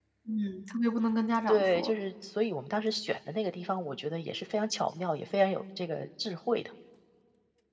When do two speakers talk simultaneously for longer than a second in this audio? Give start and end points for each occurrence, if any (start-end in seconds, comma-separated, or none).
none